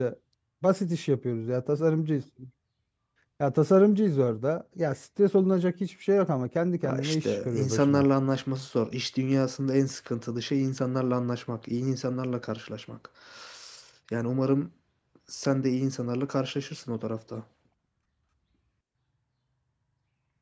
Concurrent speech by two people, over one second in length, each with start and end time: 6.8-8.0

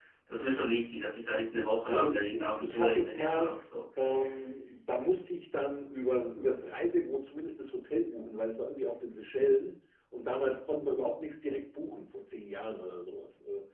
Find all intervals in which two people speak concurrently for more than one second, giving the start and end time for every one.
1.9-3.6

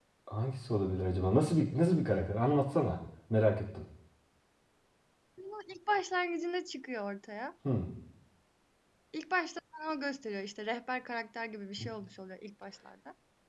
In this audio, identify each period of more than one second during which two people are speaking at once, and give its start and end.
none

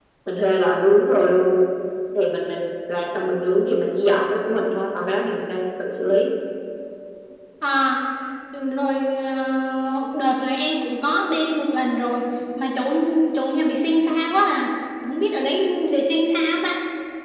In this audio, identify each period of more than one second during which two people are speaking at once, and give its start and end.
none

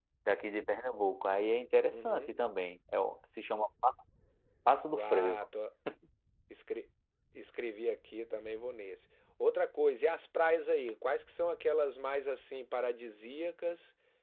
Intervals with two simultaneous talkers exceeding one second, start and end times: none

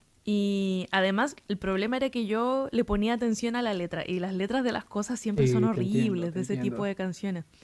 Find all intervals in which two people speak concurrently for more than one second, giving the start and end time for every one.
5.4-6.8

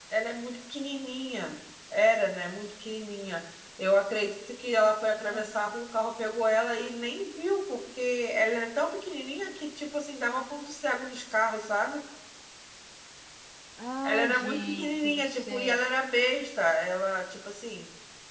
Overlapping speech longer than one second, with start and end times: 14.0-15.8

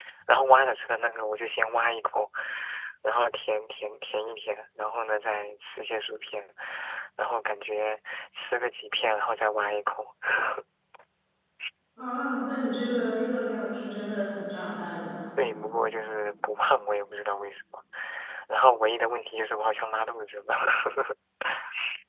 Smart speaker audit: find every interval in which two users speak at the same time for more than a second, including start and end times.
none

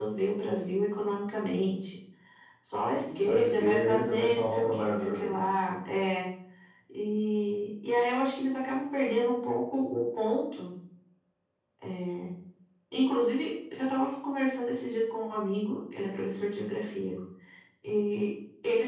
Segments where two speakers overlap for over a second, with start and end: 3.1-5.4

